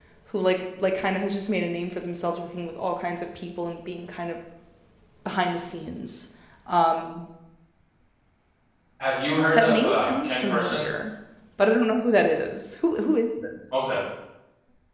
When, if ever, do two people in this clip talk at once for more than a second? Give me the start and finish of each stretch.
9.5-10.9

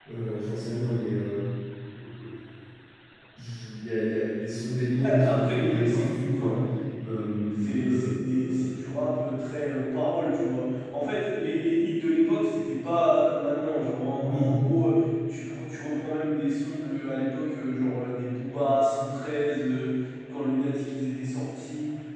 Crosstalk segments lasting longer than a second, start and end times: 5.0-6.6, 7.6-8.9

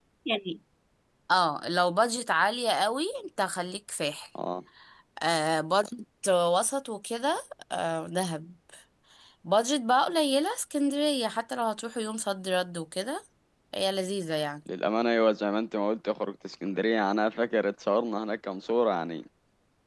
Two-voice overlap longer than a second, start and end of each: none

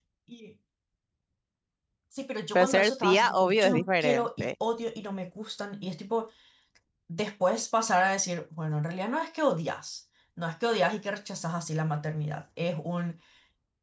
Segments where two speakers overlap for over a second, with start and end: 2.5-4.5

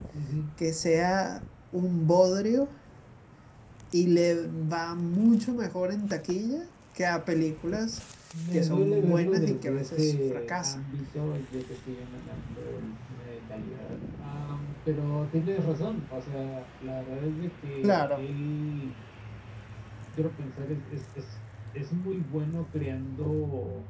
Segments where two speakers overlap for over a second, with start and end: 8.5-10.8

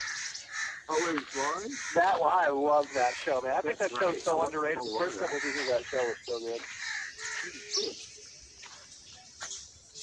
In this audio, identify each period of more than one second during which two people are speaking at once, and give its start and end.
3.6-5.4

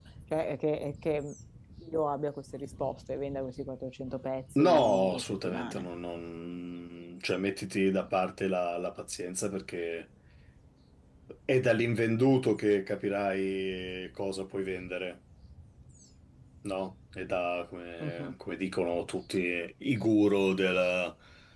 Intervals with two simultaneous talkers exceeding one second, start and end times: 4.6-5.9

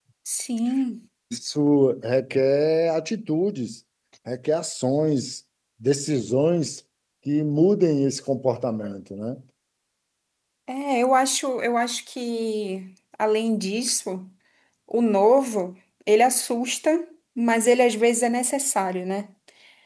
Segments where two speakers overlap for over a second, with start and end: none

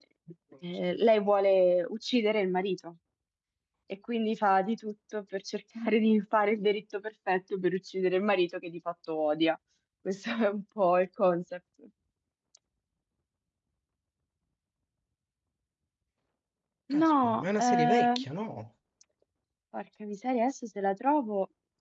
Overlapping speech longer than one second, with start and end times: 16.9-18.2

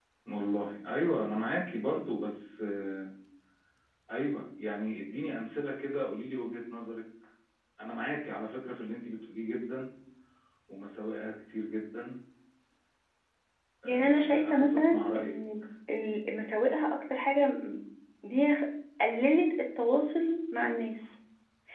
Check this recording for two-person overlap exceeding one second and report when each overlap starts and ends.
13.8-15.3

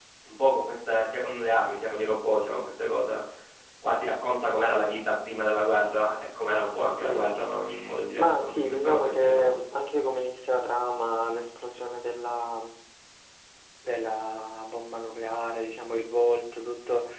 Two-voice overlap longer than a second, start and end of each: 8.2-9.7

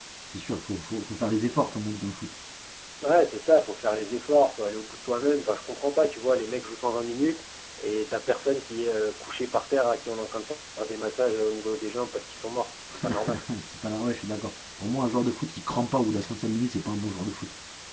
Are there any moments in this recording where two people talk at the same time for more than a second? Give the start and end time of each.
none

